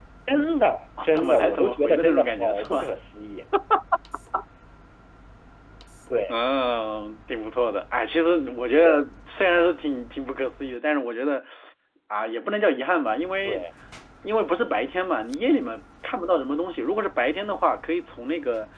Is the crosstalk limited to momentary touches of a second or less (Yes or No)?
No